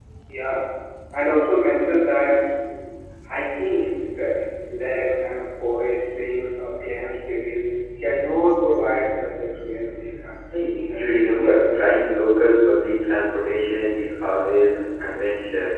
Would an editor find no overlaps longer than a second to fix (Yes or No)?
No